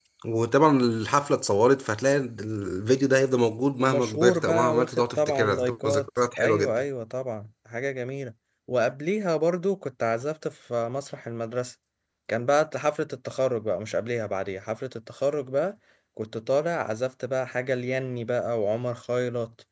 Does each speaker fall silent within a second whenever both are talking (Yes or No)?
No